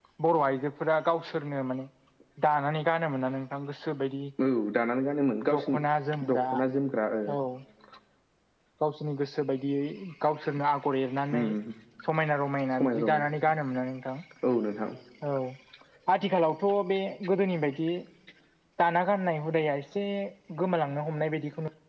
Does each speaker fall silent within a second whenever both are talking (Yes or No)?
Yes